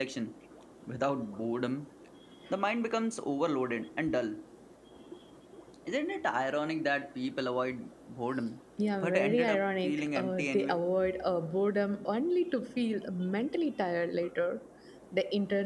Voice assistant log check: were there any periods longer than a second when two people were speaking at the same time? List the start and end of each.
9.0-10.8

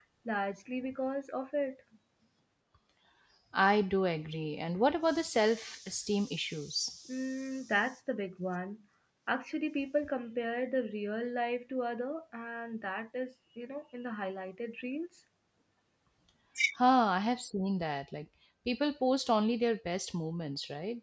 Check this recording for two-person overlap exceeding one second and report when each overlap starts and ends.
none

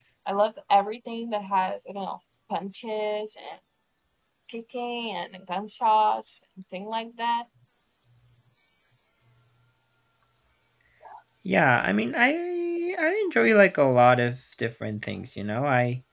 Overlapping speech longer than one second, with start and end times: none

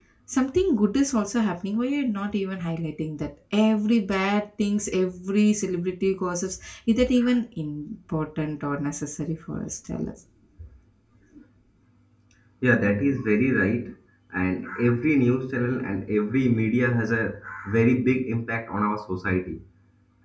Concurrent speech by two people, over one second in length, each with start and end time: none

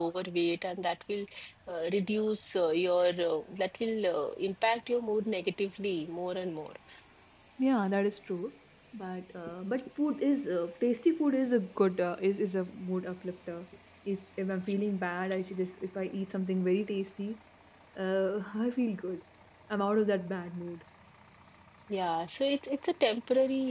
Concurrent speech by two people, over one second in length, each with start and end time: none

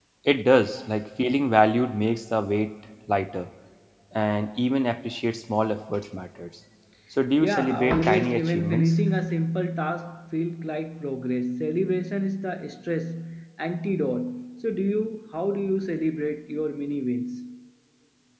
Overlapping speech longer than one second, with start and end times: 7.4-9.0

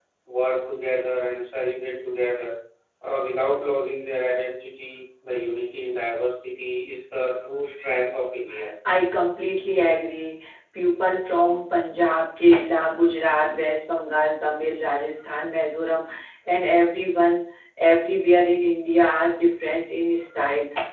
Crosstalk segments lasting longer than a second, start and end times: none

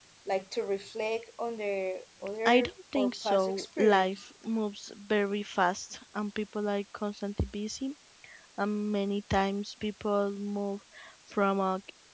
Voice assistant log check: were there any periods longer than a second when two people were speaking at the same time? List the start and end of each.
2.5-4.2

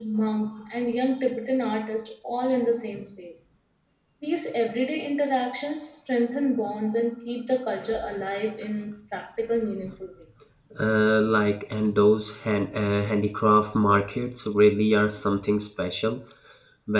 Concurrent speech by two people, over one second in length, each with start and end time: none

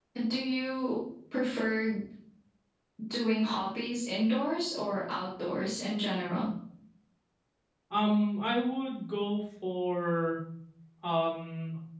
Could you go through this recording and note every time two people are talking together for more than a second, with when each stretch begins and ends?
none

